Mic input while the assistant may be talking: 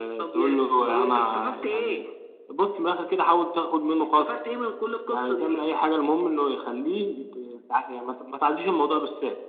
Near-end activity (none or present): none